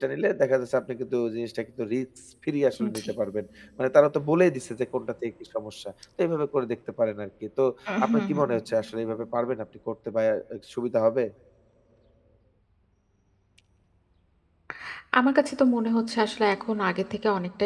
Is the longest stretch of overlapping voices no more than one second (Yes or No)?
Yes